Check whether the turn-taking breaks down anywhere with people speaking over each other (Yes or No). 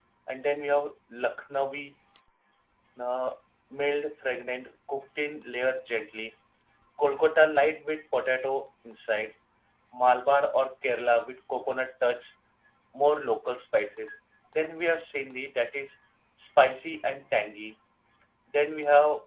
No